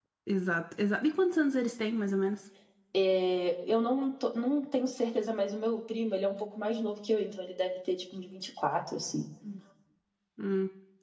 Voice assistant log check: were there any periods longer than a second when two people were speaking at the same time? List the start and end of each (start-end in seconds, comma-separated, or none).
none